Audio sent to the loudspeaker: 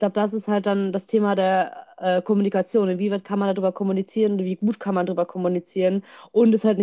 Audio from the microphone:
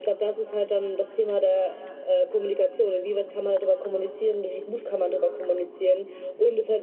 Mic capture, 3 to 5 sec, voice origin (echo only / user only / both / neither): echo only